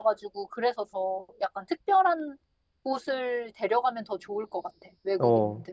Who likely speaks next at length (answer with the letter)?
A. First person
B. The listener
B